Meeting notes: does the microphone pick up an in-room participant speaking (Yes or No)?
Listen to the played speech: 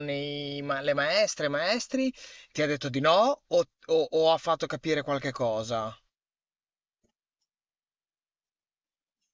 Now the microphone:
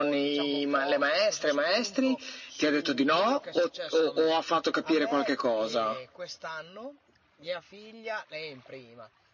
Yes